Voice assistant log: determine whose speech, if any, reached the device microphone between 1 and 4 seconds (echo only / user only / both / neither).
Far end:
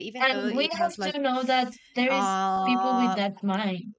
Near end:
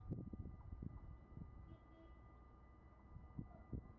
neither